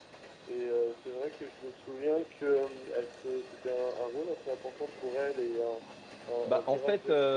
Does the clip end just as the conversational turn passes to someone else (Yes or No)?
Yes